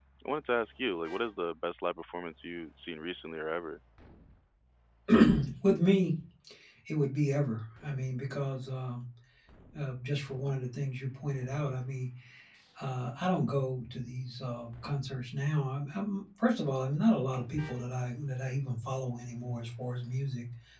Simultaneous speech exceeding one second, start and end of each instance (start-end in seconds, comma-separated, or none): none